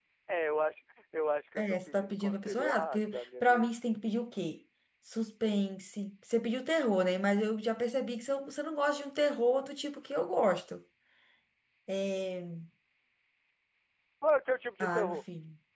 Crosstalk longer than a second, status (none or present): present